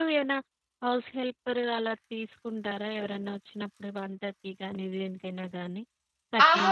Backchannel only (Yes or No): No